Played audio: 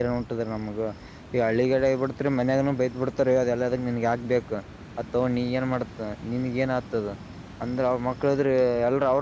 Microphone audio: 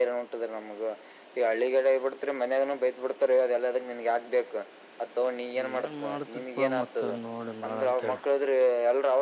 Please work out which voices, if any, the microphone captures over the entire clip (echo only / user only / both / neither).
both